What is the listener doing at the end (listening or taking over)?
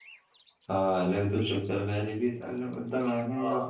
taking over